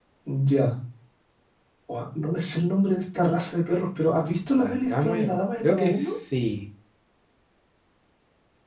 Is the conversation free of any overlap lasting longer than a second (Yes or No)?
No